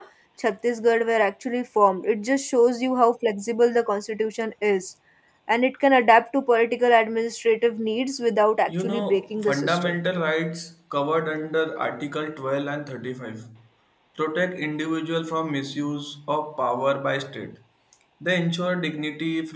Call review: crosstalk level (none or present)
present